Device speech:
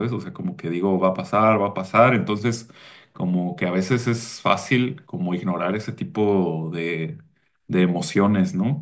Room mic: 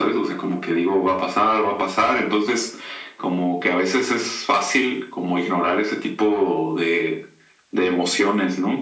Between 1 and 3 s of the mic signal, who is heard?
echo only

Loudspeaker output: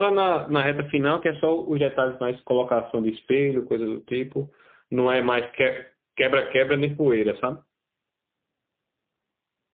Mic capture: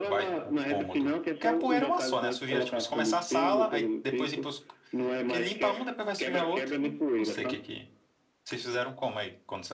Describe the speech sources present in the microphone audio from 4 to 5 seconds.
both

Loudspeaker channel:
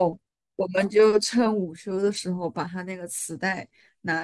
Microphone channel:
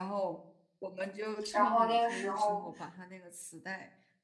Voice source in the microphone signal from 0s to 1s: echo only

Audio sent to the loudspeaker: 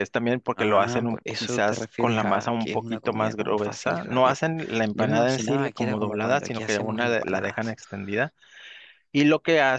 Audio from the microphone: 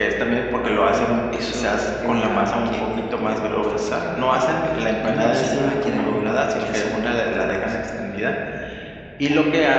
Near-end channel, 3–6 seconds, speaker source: echo only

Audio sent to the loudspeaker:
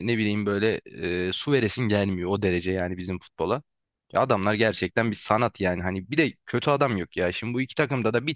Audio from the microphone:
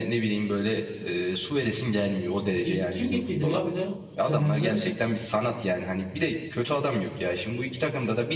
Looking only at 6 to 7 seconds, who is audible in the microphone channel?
echo only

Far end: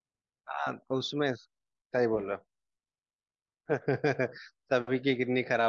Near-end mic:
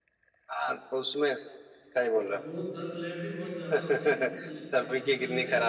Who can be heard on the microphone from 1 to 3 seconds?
both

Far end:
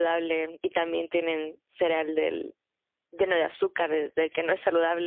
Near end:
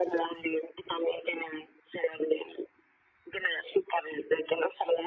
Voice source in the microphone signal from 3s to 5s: echo only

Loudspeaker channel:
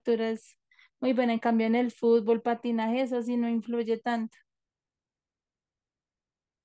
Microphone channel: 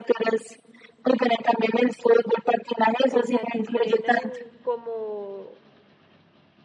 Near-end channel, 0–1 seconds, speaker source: echo only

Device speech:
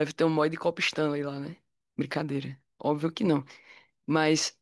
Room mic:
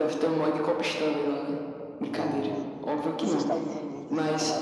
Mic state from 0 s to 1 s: echo only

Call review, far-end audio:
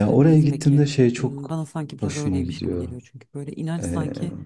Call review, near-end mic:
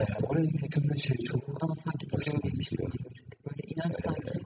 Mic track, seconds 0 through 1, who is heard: echo only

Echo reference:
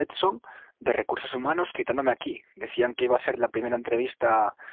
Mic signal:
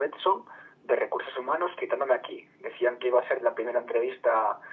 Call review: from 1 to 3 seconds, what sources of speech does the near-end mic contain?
echo only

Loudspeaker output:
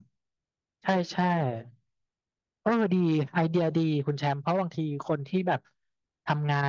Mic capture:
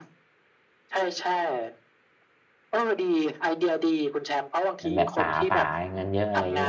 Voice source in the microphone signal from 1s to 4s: echo only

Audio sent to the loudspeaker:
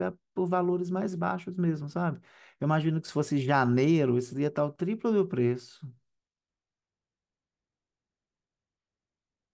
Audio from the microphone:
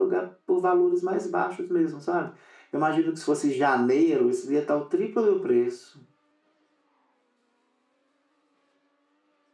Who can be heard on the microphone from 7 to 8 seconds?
neither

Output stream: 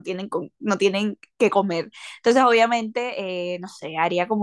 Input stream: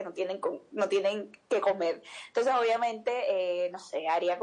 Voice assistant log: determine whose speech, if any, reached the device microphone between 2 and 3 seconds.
echo only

